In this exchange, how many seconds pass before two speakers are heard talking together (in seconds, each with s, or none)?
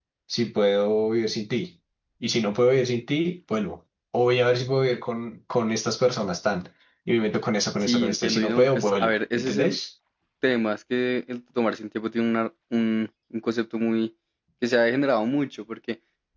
7.8 s